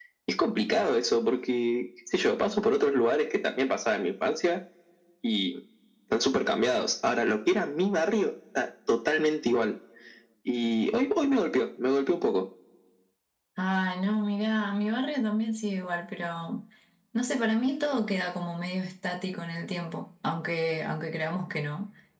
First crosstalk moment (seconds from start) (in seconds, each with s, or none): none